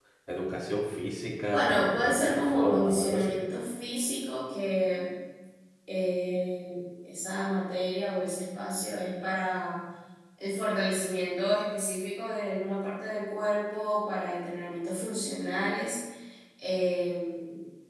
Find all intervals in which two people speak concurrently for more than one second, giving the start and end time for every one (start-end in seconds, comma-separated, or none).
1.5-3.3